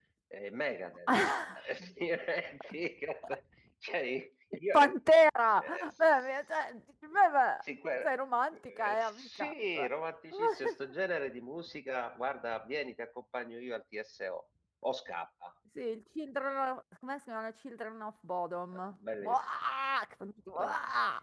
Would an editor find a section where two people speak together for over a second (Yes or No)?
Yes